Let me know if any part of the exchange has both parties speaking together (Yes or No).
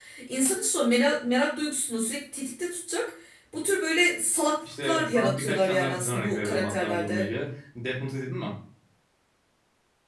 Yes